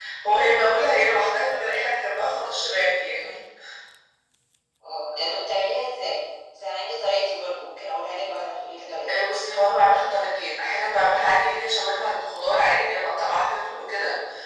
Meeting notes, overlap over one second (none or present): none